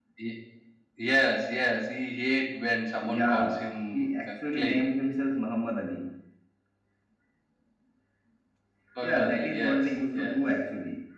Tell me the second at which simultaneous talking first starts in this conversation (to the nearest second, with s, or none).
3 s